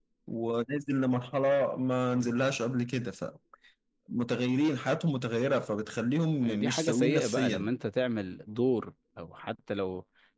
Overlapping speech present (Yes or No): Yes